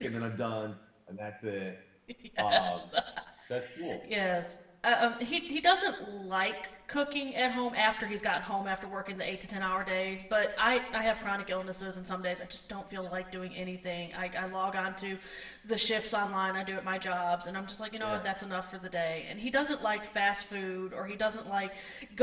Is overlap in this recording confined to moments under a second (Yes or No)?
Yes